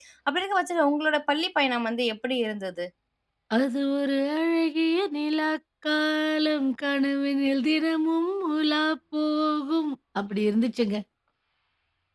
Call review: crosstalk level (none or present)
none